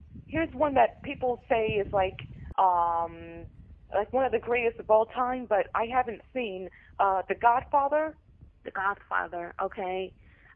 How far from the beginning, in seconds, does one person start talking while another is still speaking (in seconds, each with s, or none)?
none